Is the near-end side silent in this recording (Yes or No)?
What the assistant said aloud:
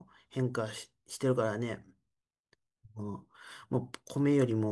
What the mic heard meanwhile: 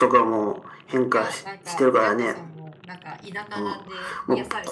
No